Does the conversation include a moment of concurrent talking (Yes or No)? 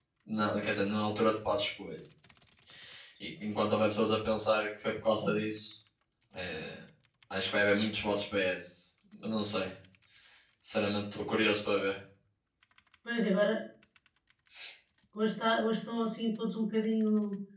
No